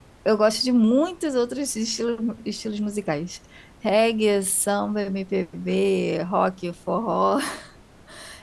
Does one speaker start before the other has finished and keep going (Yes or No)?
No